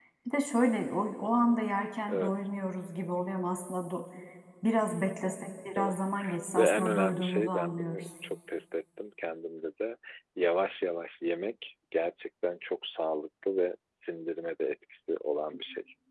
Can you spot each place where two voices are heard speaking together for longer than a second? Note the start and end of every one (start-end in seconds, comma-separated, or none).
6.6-8.1